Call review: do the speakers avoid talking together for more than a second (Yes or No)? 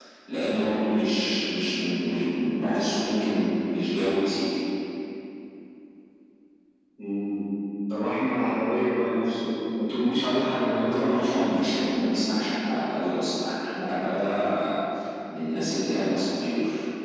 Yes